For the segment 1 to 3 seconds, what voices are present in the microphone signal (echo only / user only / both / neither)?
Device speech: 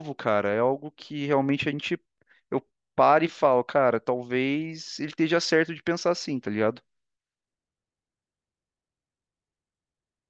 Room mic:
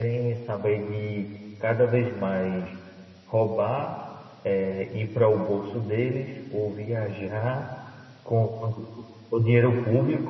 user only